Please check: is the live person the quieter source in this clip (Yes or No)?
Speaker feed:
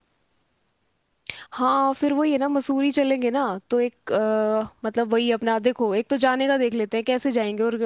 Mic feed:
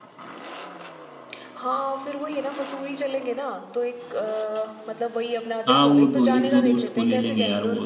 No